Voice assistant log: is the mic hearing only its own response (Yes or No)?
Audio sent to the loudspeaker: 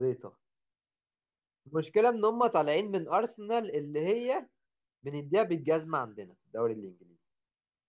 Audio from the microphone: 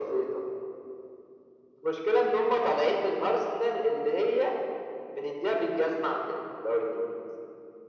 Yes